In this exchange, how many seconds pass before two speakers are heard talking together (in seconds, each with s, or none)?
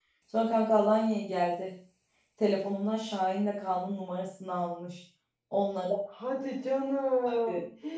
none